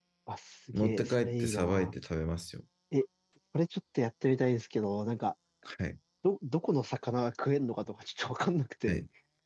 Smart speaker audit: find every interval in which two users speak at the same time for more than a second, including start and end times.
0.7-1.9

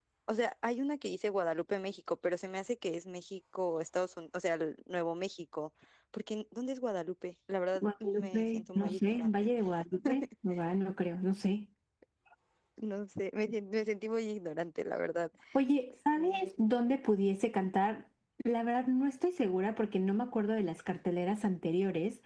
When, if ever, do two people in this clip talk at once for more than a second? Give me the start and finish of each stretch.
7.8-9.3

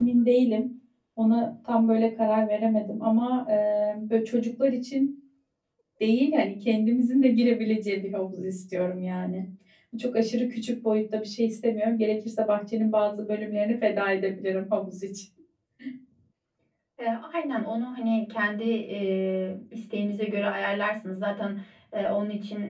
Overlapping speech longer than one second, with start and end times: none

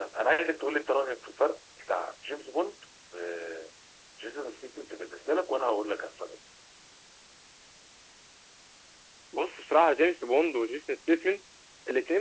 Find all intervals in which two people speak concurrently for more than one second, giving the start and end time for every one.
none

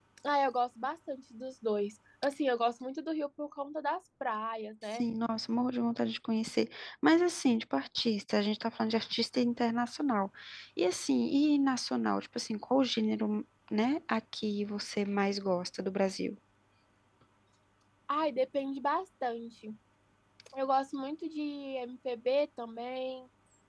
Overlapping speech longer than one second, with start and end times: none

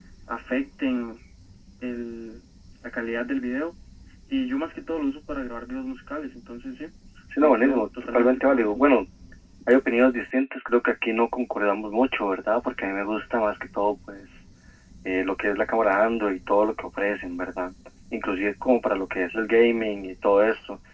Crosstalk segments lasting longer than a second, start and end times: 7.4-8.9

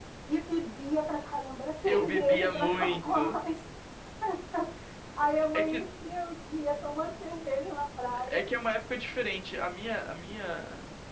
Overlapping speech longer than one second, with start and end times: 1.8-3.4

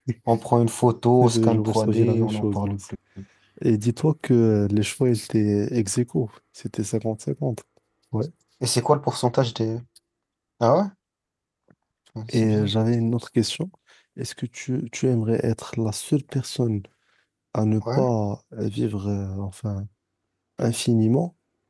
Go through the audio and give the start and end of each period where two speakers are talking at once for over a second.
1.2-2.8

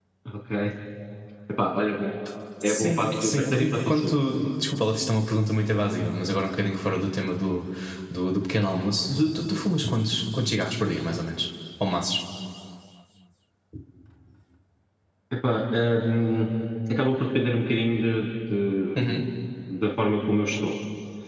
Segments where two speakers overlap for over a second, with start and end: 2.6-4.2

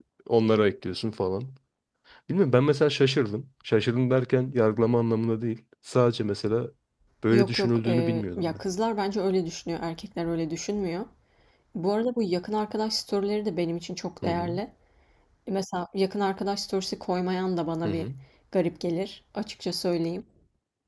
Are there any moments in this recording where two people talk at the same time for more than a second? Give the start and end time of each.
7.3-8.6

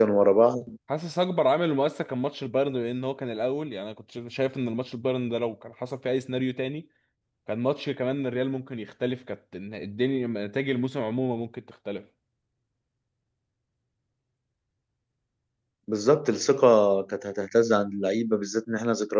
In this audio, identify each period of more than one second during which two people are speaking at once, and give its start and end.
none

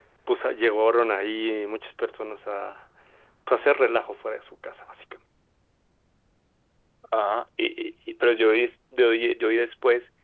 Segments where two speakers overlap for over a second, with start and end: none

